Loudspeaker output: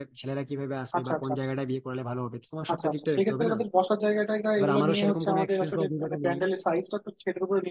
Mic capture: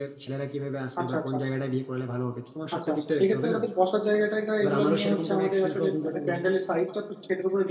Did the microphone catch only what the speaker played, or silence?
Yes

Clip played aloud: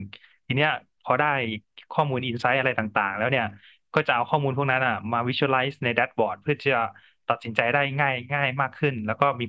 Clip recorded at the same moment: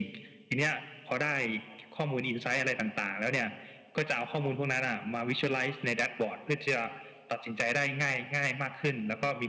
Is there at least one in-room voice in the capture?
No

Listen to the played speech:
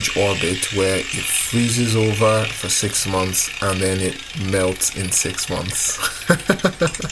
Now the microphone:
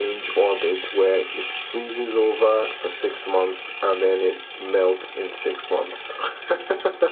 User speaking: No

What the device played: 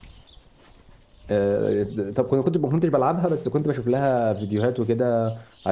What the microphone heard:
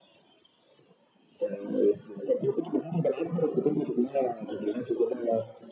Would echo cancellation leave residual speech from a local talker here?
No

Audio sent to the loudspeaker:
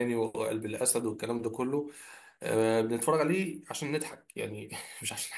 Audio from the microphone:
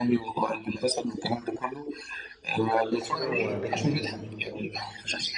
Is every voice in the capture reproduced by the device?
No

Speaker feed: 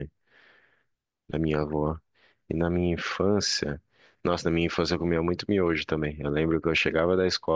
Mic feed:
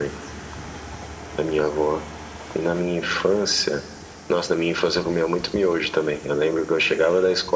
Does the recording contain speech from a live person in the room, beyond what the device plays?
No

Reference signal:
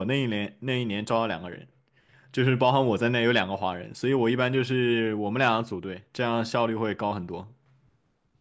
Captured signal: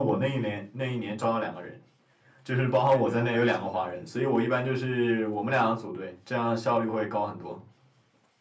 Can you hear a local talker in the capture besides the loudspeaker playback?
Yes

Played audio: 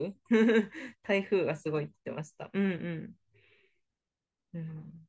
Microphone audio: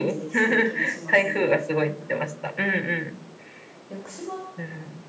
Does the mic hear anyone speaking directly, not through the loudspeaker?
Yes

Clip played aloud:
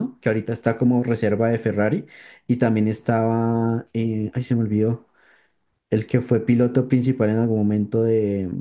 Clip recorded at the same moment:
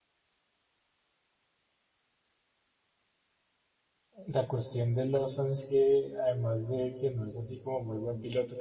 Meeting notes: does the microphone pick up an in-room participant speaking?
Yes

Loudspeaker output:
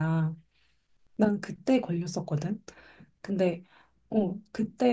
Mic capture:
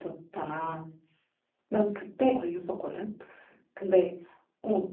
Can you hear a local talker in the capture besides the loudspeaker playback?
No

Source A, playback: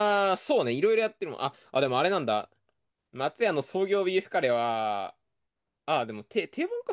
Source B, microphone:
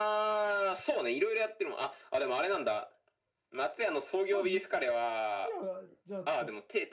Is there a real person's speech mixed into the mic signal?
Yes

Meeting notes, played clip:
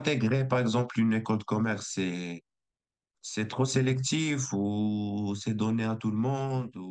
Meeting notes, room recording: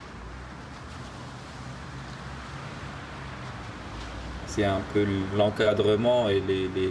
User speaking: Yes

